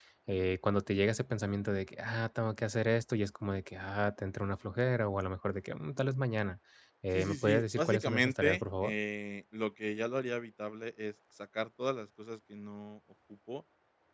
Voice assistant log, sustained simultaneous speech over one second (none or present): present